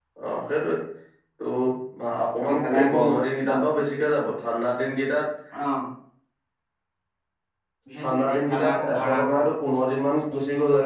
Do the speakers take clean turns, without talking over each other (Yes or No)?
No